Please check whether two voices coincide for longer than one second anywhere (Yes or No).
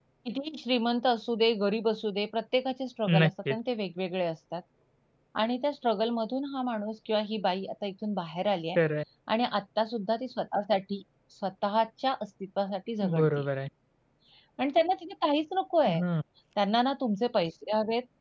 No